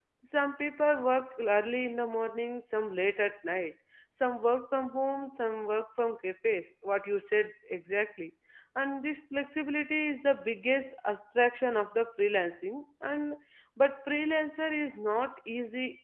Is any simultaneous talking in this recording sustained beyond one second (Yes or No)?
No